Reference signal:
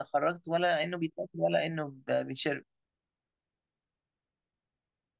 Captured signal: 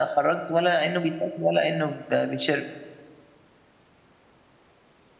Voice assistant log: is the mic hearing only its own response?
Yes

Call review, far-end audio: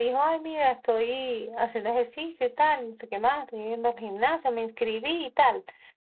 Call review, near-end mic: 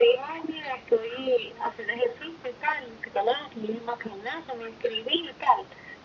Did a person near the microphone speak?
No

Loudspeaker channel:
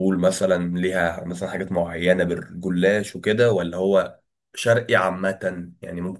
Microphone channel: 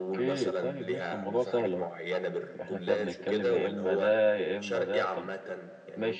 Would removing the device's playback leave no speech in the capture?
No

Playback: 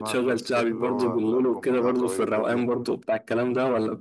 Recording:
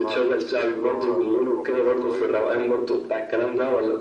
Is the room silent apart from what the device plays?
Yes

